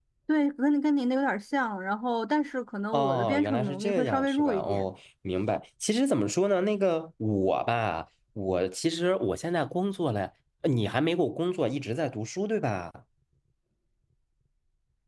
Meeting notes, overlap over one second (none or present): present